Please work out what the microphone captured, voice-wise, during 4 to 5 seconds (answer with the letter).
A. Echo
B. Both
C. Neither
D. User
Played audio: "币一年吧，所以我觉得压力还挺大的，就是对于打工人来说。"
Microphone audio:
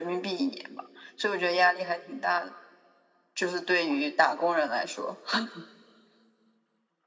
A